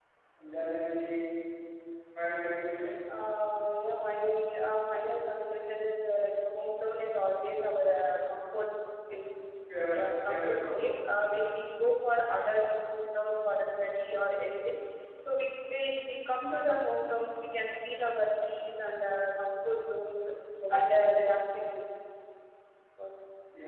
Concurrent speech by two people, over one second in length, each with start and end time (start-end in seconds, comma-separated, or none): 9.9-11.3